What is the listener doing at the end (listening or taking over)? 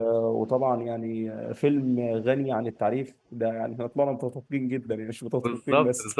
taking over